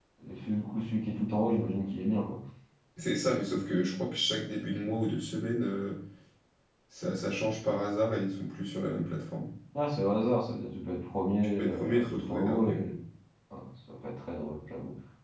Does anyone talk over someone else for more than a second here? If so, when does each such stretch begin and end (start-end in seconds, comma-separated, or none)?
11.6-12.9